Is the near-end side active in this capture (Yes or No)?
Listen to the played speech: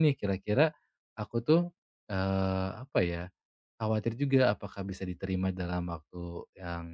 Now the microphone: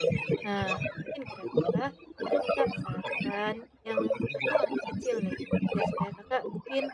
Yes